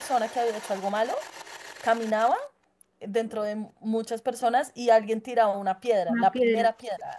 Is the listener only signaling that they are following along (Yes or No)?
Yes